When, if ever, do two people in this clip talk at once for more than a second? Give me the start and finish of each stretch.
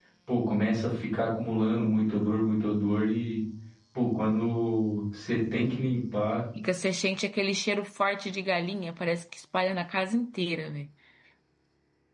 none

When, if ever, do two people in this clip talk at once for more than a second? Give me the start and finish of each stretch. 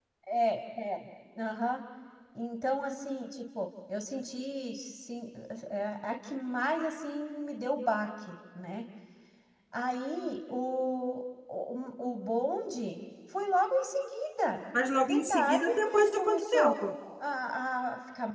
15.0-16.8

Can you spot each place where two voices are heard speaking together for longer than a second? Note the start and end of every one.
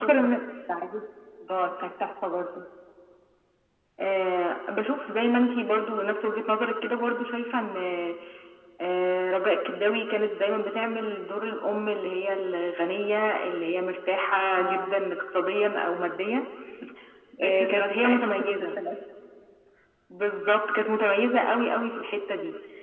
17.4-18.8

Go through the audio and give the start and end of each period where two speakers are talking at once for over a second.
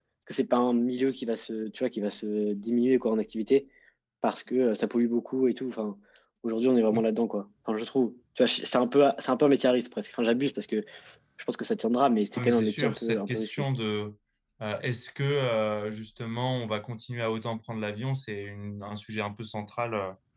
12.3-13.6

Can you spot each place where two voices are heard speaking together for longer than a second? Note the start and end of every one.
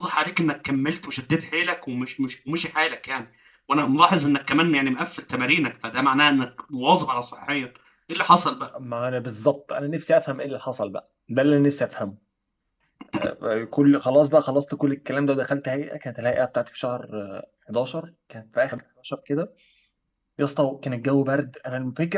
none

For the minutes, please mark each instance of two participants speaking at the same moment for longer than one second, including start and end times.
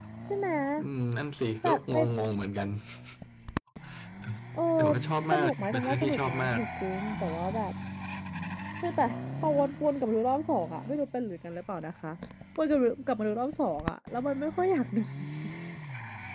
5.3-6.6

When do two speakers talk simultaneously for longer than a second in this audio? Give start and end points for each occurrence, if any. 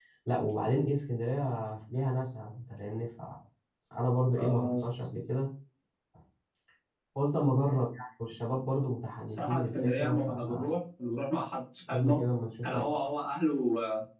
9.3-10.7

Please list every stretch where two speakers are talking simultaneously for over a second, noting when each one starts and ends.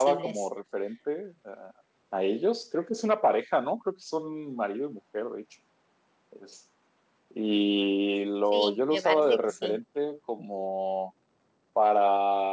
8.5-9.8

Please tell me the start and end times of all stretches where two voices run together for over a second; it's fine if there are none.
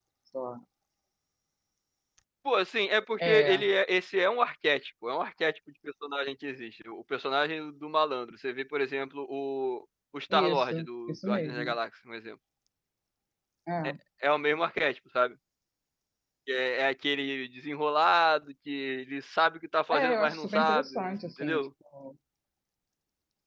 10.3-11.8, 19.9-21.7

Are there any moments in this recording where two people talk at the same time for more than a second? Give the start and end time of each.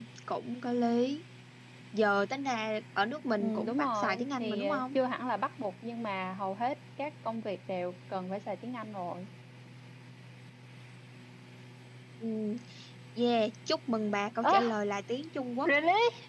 3.4-4.8

